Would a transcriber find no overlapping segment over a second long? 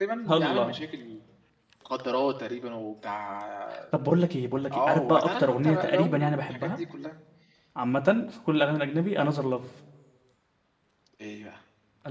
No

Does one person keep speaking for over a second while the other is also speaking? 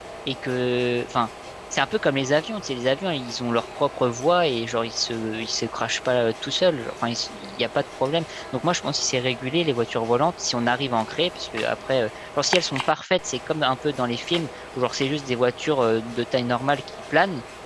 No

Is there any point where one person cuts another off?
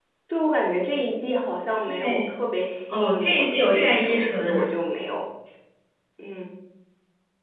Yes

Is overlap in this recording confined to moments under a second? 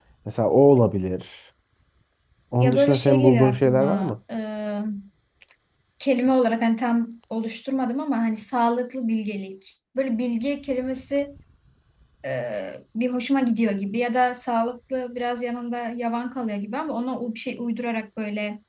No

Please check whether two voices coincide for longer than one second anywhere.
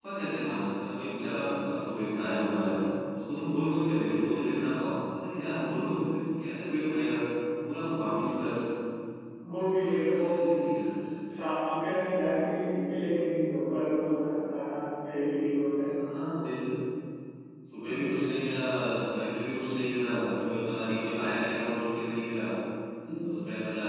No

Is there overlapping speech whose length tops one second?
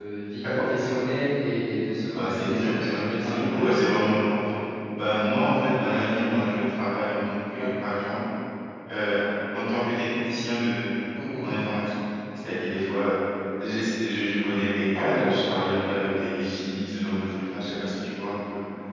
Yes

